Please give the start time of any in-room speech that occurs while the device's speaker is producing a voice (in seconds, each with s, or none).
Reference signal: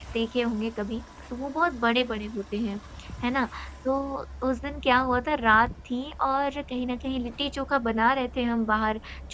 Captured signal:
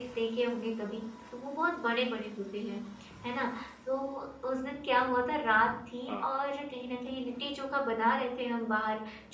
6.1 s